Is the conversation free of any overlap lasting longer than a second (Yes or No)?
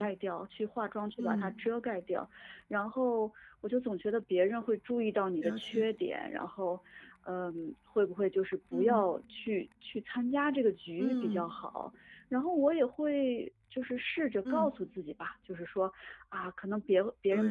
Yes